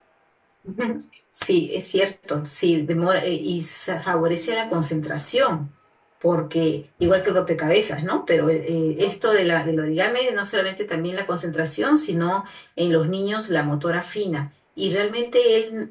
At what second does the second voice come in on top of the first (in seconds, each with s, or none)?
none